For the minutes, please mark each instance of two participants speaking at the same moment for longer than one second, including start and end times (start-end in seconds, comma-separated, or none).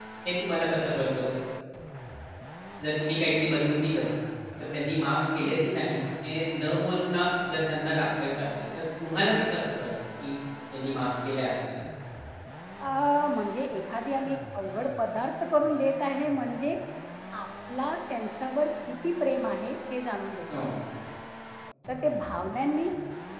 none